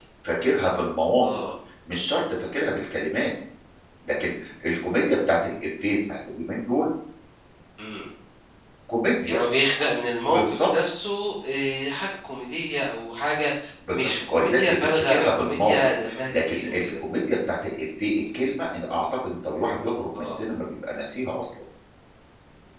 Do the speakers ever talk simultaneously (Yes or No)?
Yes